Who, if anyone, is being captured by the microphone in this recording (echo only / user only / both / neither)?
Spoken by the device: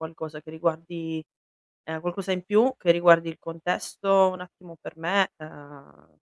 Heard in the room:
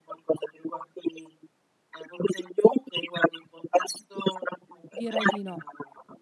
both